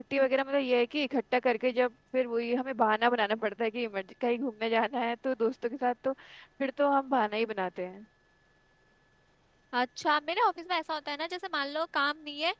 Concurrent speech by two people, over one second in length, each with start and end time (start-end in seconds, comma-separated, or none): none